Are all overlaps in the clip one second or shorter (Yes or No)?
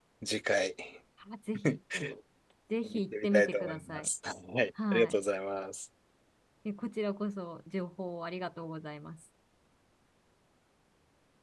No